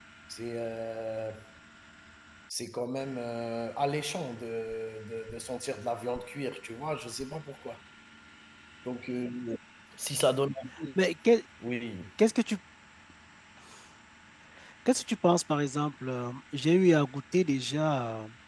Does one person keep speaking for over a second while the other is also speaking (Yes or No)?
No